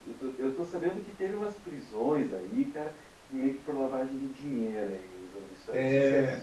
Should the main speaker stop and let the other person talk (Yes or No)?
Yes